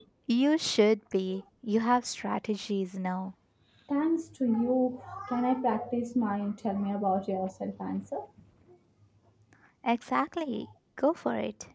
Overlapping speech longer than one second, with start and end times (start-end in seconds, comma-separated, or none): none